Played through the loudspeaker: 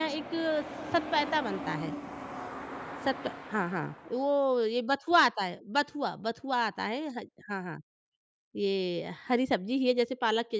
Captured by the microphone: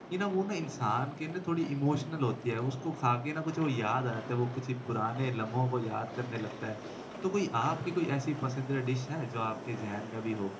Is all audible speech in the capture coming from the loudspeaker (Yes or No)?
No